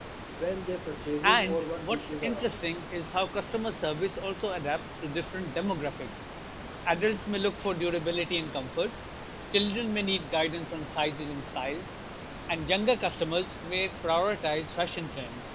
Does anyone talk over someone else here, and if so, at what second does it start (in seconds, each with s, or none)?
1.2 s